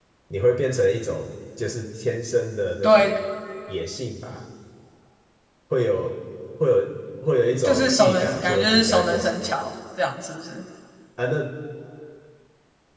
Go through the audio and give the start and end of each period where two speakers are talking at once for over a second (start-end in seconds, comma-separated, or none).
7.6-9.6